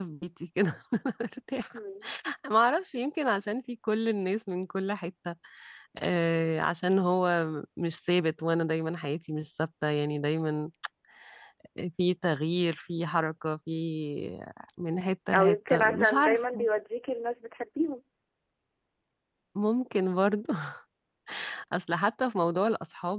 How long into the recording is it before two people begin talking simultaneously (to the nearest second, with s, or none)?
15 s